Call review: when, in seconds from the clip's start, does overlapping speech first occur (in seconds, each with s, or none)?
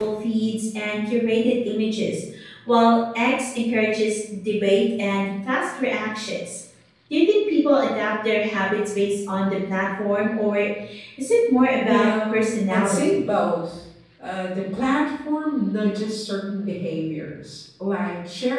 11.8 s